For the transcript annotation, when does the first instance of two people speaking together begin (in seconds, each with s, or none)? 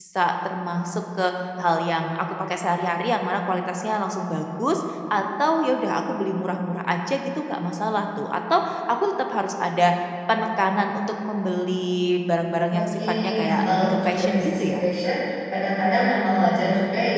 12.7 s